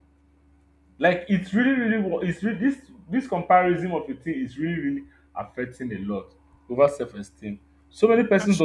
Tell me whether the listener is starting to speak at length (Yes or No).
No